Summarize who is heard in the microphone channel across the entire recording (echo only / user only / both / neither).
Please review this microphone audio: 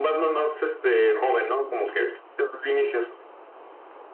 echo only